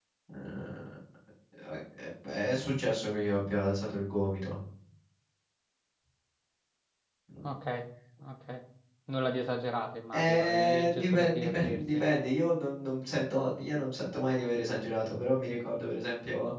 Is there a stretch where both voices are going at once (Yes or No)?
Yes